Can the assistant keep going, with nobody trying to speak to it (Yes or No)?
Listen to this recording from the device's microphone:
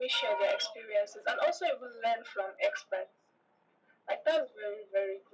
Yes